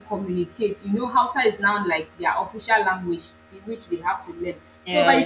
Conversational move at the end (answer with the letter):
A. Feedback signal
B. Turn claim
A